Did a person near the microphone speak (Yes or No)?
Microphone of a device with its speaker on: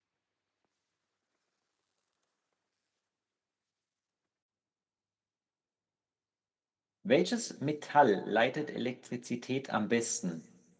Yes